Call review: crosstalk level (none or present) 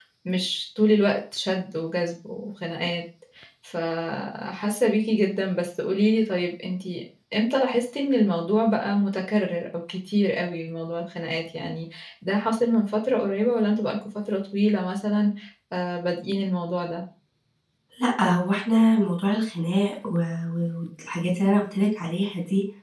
none